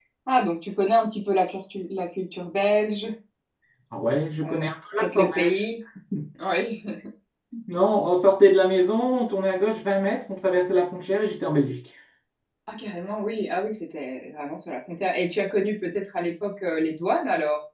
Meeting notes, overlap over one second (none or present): present